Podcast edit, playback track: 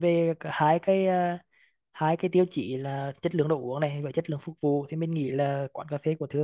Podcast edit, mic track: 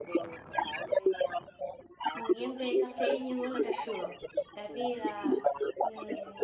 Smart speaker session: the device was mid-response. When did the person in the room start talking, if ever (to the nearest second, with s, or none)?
2 s